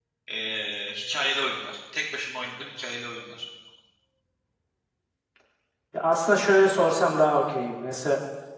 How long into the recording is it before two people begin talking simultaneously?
none

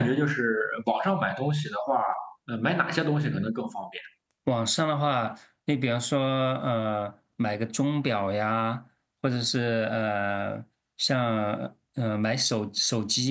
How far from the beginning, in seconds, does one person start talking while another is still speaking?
none

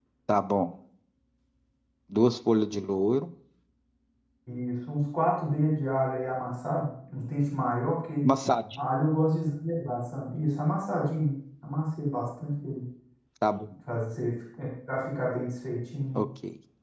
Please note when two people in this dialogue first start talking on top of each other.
none

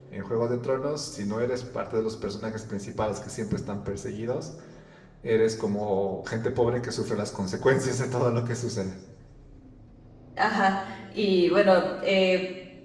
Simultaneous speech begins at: none

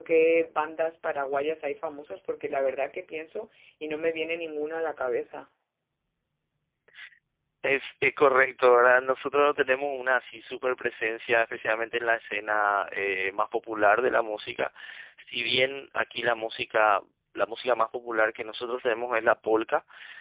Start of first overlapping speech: none

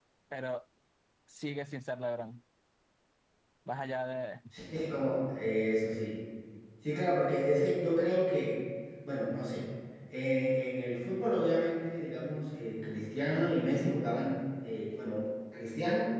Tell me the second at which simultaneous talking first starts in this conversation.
none

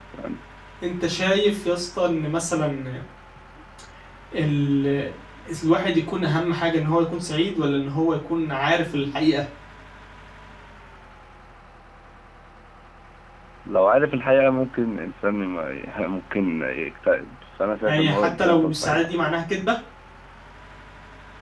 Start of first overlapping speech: 17.9 s

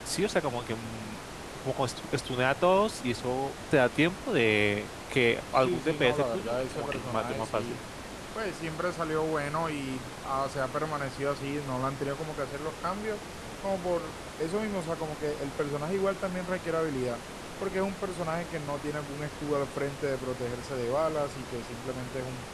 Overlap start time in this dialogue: 5.5 s

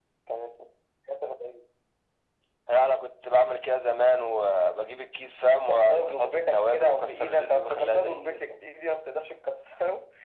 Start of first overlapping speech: 5.5 s

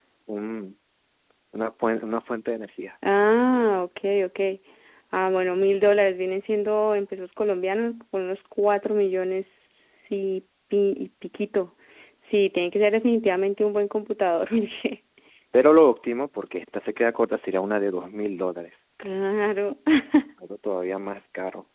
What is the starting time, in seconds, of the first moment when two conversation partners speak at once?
none

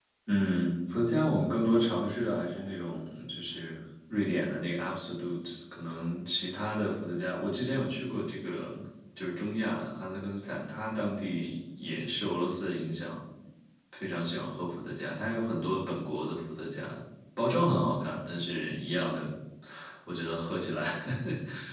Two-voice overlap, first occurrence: none

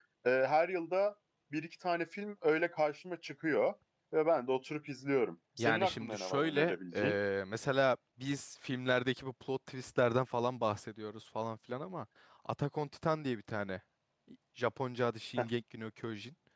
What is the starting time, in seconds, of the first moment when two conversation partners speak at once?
5.6 s

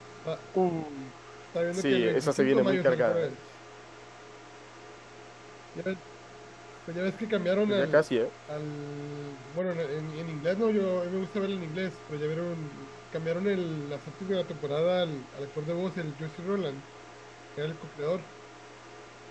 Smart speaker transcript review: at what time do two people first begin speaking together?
1.7 s

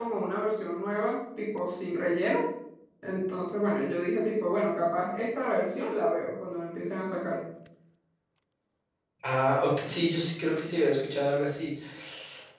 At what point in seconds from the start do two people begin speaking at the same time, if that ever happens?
none

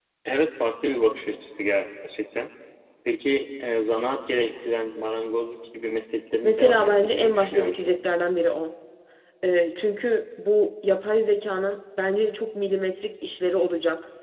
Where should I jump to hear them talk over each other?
6.4 s

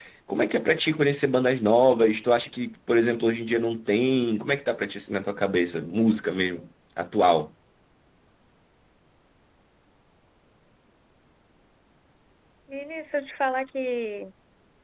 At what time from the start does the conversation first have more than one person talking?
none

